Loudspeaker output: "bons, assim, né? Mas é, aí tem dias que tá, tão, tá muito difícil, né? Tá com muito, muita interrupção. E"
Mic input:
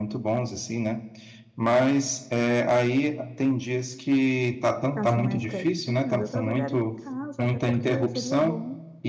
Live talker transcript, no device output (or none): ficassem mais quietinhas, eu trabalharia em casa, até porque seria bom